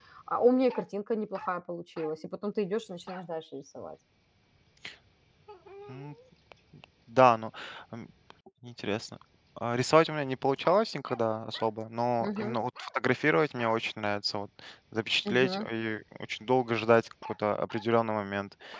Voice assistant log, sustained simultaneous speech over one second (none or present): none